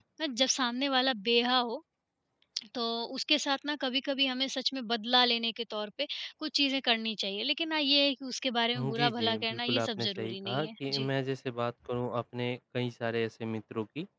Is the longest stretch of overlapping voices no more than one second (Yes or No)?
No